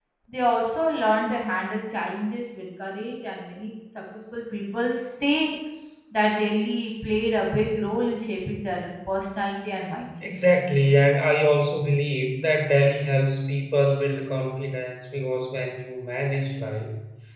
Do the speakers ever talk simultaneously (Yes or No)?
No